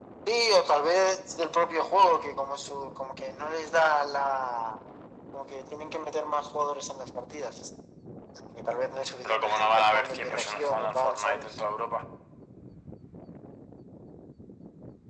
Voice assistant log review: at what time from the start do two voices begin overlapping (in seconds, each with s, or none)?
9.2 s